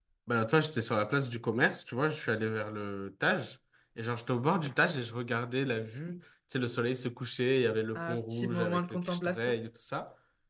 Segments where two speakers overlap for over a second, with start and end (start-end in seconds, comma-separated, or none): 8.0-9.5